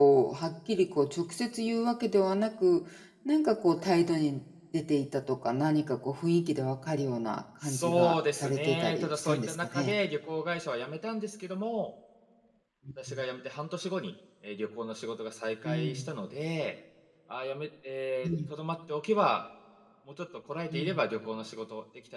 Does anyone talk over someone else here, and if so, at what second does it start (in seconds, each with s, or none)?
7.6 s